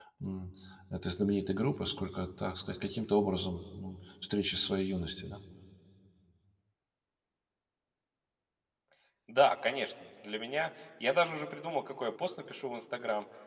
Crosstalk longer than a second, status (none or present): none